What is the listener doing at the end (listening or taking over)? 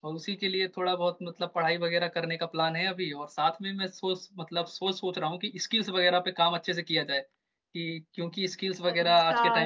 taking over